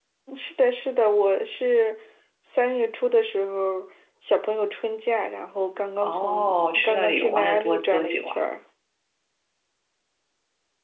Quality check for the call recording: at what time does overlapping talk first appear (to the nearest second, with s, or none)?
6 s